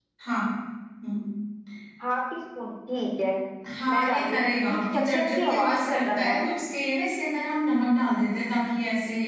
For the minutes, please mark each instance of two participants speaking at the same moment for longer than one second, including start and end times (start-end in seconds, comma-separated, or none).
3.9-6.4